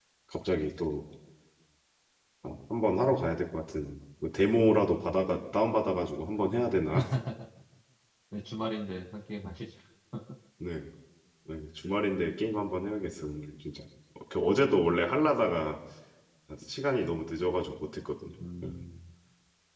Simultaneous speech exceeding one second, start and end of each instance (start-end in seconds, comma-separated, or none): none